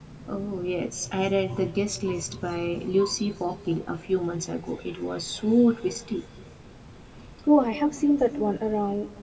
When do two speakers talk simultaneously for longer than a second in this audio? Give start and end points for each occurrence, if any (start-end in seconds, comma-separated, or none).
none